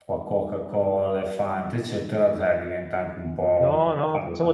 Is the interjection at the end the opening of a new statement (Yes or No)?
Yes